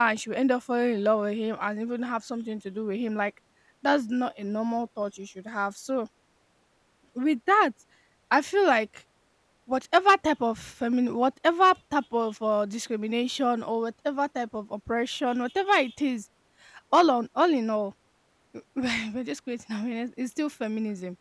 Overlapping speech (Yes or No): No